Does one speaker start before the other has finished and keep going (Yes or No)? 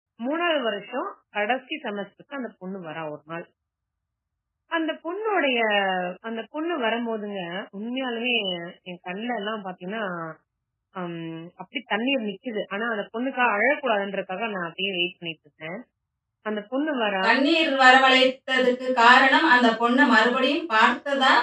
No